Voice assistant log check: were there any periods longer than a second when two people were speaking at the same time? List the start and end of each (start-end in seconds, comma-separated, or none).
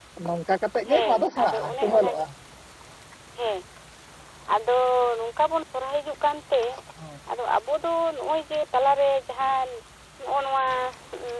0.9-2.2